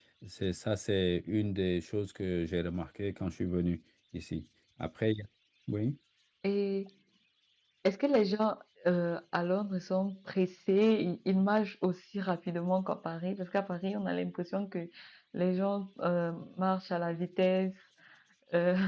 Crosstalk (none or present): none